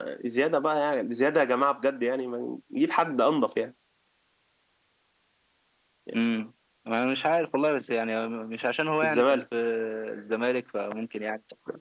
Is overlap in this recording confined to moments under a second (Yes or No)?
Yes